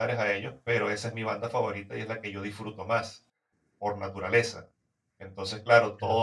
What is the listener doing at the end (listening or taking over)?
listening